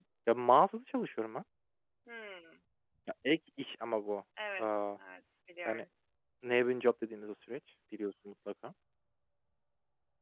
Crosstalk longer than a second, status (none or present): none